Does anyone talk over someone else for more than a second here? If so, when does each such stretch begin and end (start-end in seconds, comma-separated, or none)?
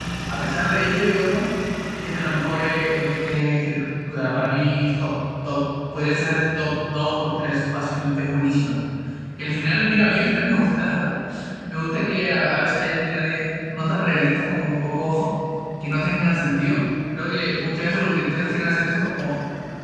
none